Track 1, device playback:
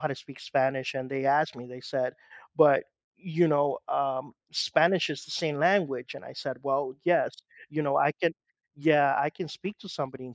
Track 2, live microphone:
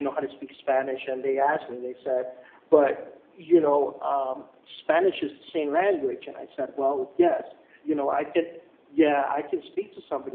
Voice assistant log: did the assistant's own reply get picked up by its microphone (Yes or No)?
Yes